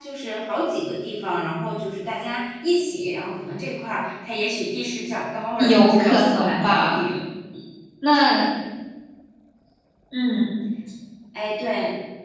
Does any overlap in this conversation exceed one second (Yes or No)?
Yes